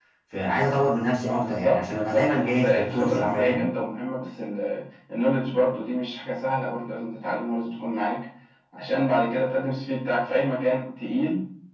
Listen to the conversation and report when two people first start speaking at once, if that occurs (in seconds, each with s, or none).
1.4 s